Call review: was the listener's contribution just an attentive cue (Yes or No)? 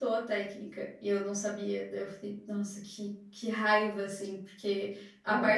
Yes